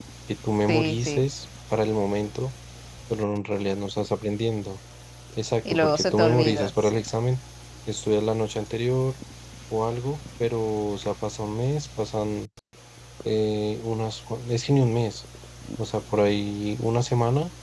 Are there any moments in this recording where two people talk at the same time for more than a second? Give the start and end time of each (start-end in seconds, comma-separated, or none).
5.7-7.0